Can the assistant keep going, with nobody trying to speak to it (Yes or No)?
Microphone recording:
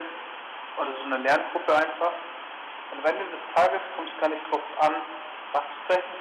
Yes